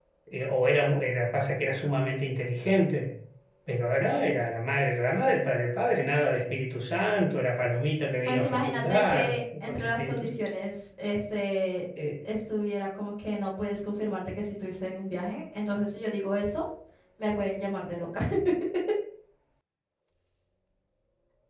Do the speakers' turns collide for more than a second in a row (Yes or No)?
Yes